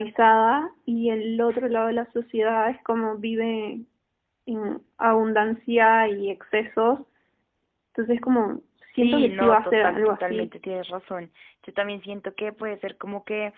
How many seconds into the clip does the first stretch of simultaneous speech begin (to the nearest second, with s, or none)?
9 s